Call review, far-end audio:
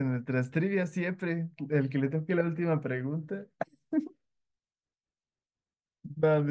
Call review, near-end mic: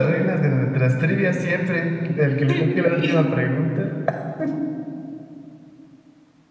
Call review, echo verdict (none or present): present